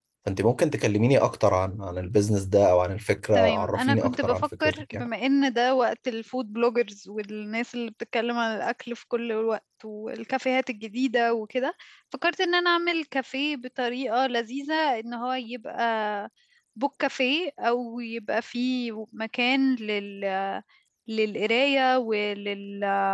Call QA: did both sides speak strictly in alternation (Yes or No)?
No